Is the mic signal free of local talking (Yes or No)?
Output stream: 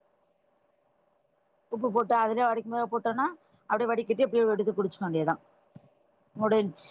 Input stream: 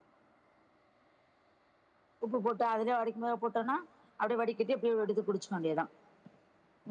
Yes